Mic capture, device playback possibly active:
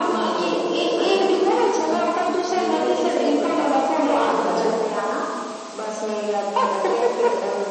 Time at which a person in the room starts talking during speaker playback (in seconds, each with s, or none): none